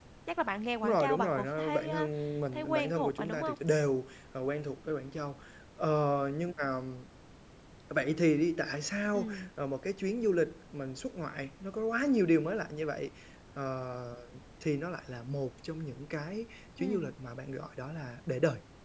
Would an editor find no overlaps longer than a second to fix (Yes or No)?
No